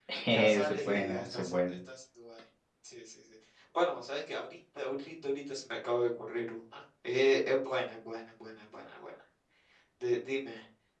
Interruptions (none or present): present